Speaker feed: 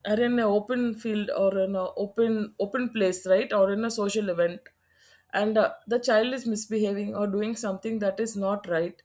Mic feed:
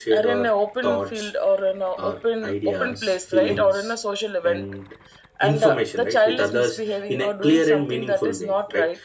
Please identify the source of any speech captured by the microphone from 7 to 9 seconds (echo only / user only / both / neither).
both